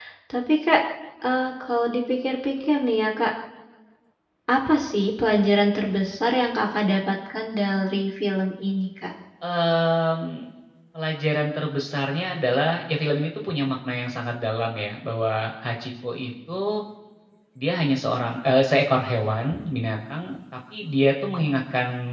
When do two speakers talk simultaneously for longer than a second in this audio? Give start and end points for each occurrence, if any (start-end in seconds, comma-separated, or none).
none